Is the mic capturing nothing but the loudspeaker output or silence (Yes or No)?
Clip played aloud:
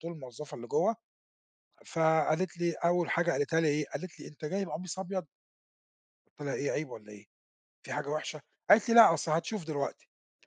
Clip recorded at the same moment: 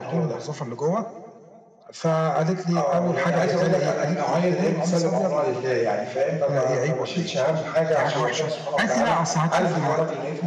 No